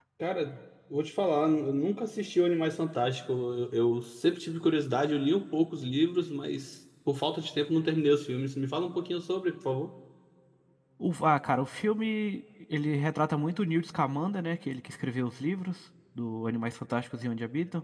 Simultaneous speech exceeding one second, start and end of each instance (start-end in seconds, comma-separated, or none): none